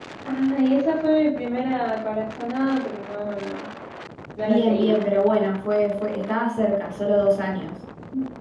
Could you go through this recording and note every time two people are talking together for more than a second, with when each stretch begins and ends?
none

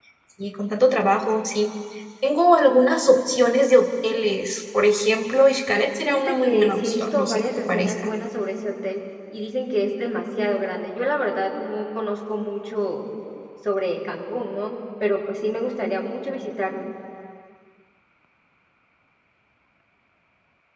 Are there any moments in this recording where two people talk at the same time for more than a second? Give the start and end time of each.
6.1-8.1

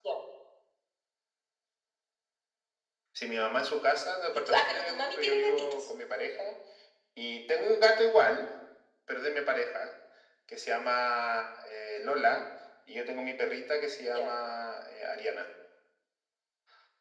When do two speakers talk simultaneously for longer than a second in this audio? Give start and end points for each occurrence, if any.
4.3-5.8

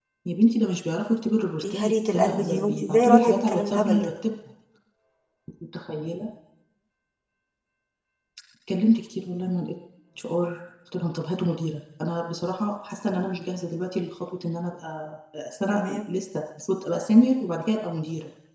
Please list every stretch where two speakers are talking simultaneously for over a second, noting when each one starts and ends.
1.7-4.1

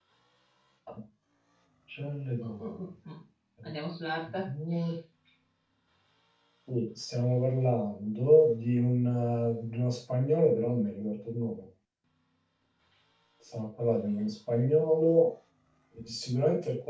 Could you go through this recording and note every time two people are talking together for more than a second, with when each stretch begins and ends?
none

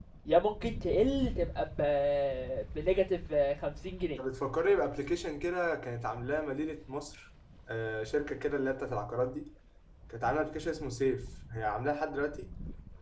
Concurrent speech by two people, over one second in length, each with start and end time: none

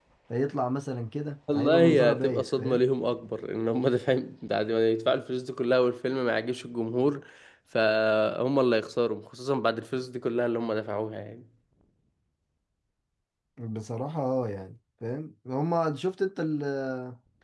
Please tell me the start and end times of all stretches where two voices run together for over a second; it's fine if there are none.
1.5-2.8

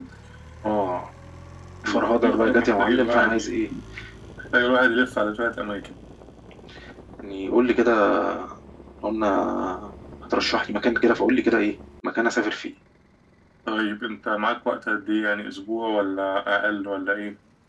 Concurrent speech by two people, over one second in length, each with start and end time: 1.9-3.5

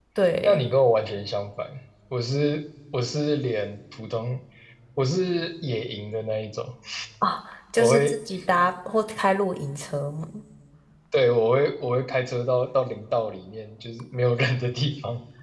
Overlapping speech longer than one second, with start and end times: none

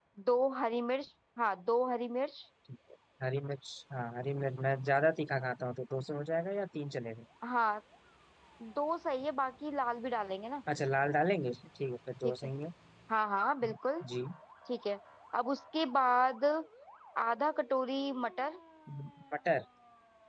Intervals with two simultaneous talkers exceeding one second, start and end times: none

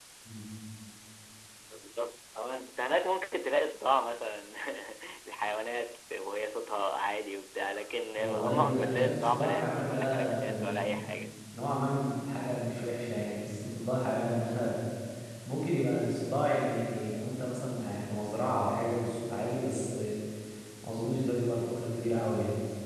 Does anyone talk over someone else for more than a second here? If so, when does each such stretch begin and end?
8.2-10.9

